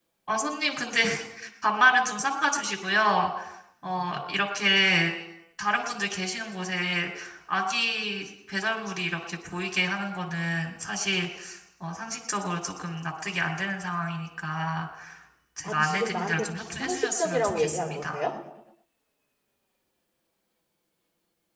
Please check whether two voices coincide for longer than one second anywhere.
Yes, from 15.6 s

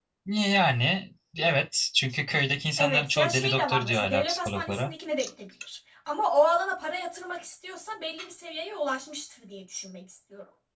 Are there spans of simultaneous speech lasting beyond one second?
Yes, from 2.8 s

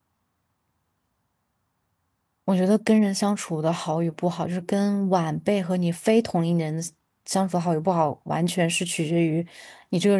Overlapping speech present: No

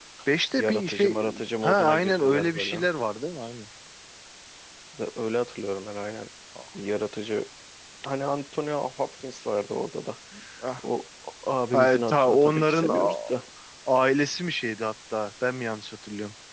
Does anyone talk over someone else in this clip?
Yes, from 0.6 s

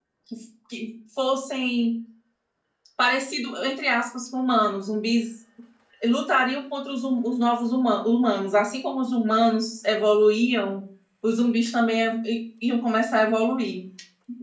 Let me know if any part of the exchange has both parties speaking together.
No

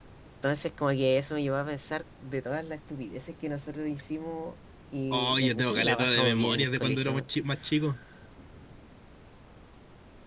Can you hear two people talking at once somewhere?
Yes, from 5.1 s

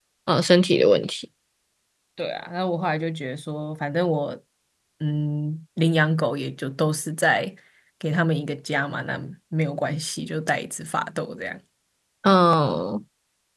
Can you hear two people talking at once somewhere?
No

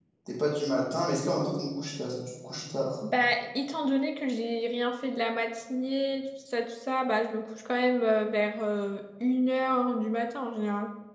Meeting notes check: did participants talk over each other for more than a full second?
No

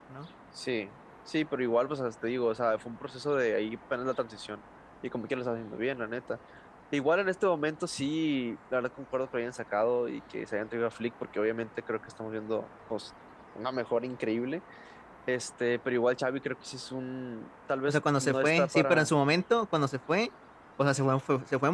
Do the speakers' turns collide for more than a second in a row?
Yes, from 17.9 s

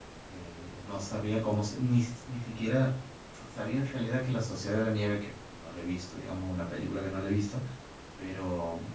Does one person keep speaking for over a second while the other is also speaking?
No

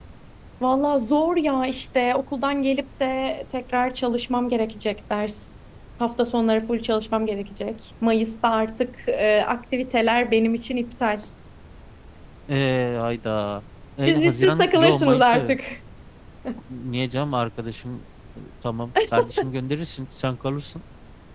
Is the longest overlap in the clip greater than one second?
Yes, from 14.0 s

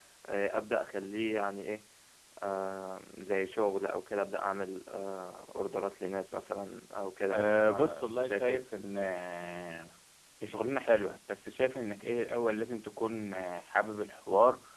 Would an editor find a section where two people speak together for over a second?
Yes, from 7.3 s

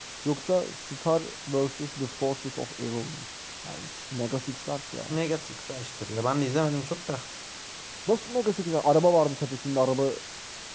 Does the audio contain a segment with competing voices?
No

